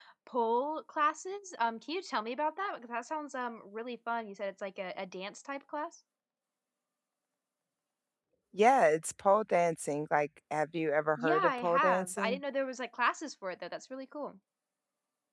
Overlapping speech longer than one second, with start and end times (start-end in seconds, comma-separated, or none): 11.2-12.4